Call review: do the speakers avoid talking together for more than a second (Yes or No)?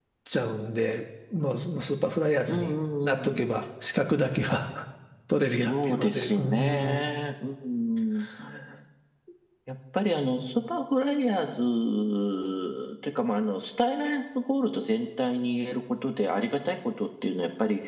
No